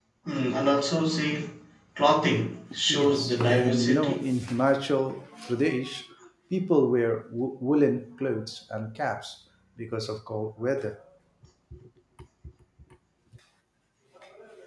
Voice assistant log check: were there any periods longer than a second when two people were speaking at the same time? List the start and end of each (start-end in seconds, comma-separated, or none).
2.9-4.2